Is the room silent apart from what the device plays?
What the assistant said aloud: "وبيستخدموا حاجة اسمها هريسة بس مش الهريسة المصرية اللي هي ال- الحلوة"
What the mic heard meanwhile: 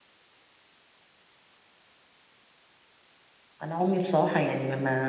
No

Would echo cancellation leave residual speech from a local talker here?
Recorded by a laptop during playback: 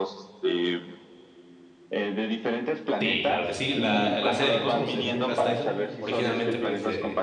Yes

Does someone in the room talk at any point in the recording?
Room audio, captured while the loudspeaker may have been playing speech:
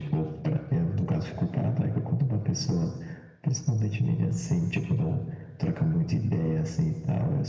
No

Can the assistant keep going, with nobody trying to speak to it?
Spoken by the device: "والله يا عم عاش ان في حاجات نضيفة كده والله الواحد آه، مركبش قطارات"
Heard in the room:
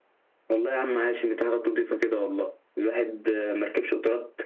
Yes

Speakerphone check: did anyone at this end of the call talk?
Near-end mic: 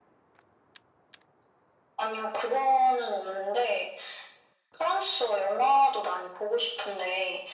No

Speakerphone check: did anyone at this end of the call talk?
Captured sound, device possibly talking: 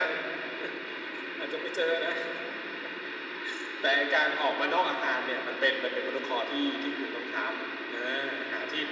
No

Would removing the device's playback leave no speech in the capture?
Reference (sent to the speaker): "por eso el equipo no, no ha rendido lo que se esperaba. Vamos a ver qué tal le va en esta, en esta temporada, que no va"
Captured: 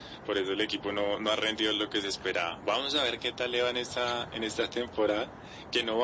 Yes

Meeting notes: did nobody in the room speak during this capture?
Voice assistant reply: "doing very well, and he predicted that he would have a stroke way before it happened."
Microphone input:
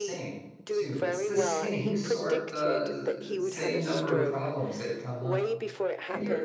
No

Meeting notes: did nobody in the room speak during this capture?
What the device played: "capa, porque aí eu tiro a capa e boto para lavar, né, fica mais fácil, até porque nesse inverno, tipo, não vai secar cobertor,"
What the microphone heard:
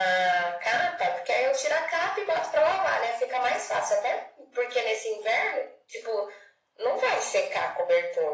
Yes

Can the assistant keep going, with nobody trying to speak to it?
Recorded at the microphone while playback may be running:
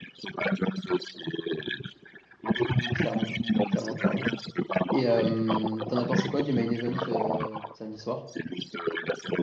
No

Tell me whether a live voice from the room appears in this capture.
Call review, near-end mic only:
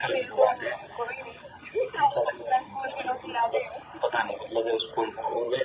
No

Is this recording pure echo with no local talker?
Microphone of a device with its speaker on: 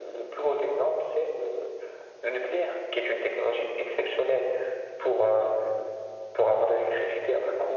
Yes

